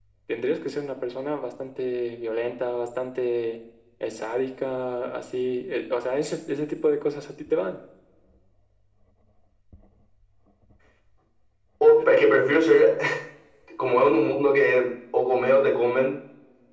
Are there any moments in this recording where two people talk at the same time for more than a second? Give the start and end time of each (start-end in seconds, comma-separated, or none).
none